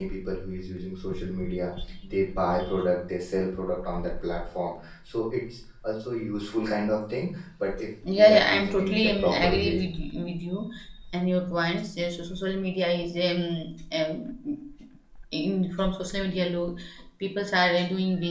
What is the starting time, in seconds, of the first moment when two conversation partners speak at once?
8 s

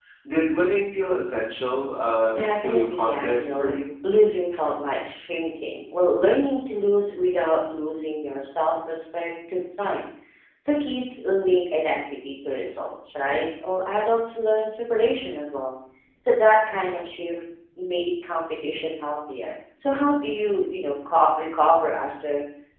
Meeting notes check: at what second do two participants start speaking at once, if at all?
2 s

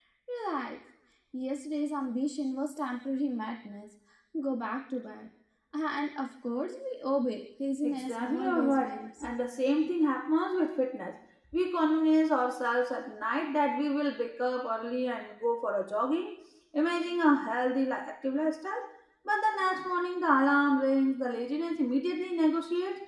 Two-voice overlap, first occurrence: 8 s

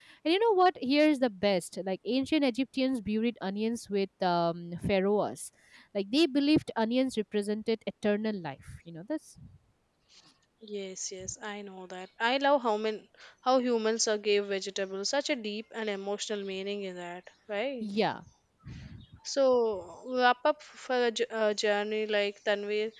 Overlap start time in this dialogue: none

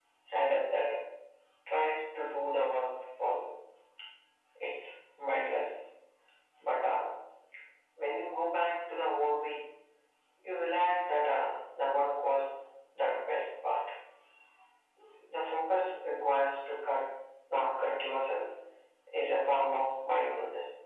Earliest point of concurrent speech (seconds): none

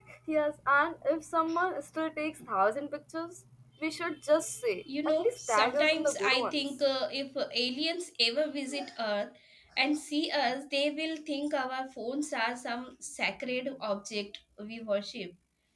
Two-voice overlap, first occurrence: 5 s

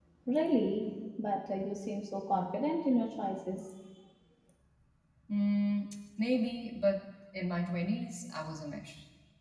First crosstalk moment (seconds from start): none

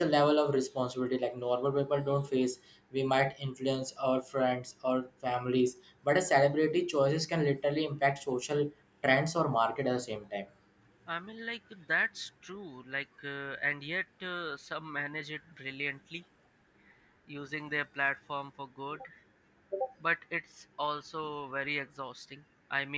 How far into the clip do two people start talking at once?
none

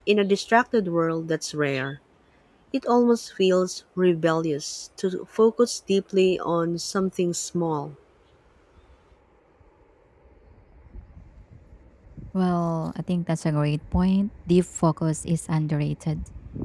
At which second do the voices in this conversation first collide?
none

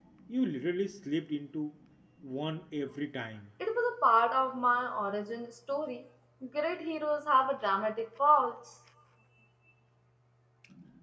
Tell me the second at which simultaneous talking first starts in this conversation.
none

